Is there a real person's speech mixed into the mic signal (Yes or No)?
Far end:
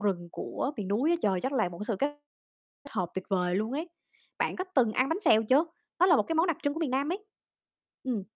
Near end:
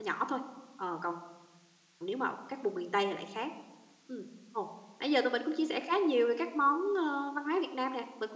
Yes